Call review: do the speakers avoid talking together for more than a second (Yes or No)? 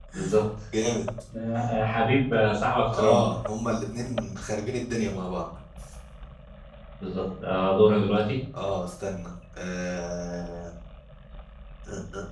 Yes